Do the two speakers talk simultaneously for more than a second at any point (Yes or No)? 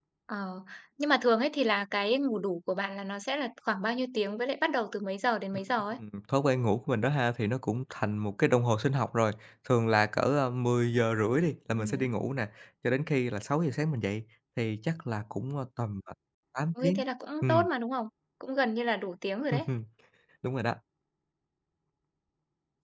No